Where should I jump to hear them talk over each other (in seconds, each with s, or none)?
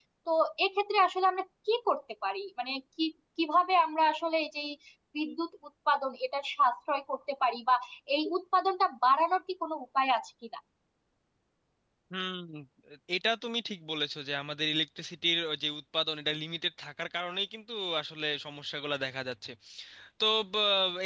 none